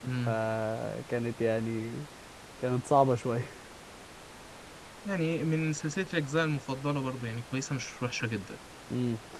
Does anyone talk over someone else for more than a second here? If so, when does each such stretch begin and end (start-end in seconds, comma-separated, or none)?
none